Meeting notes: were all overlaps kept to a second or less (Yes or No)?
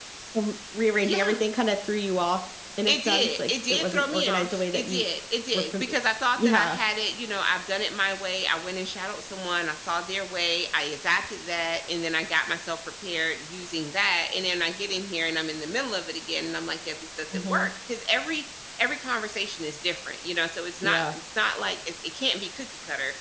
No